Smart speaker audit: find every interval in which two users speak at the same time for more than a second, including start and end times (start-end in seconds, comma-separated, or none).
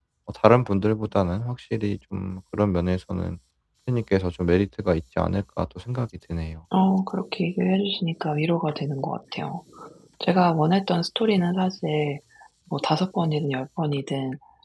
none